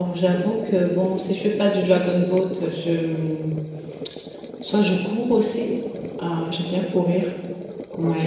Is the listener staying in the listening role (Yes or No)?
No